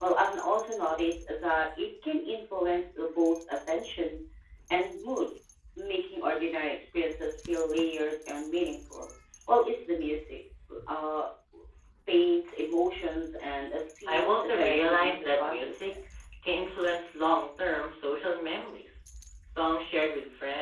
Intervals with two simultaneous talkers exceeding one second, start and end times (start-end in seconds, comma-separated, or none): 14.1-15.9